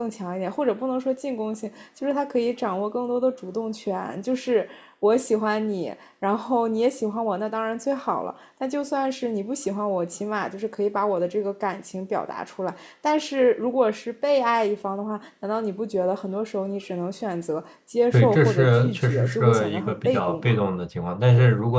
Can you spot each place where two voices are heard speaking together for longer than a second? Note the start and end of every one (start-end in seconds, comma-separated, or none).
18.1-20.6